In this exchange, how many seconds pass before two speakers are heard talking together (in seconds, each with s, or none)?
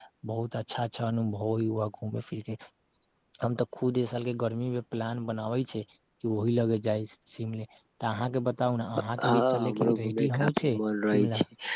9.2 s